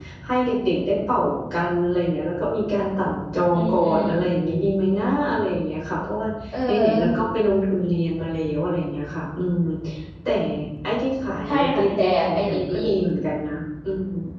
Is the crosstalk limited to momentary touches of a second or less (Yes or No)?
No